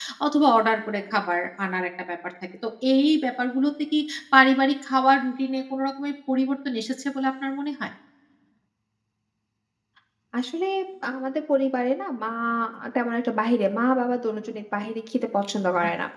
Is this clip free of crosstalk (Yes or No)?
Yes